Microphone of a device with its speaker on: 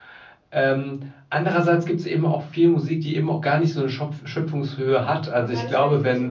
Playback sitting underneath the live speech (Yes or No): No